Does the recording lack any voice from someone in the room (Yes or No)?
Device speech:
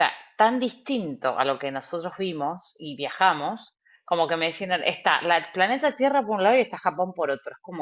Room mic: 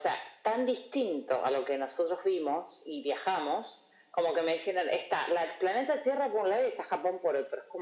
Yes